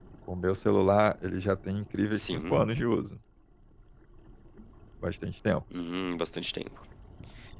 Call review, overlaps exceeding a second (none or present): none